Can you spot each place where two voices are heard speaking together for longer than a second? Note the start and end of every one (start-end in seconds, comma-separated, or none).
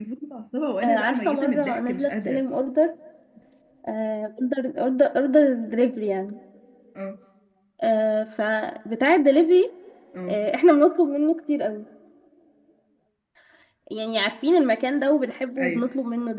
0.8-2.4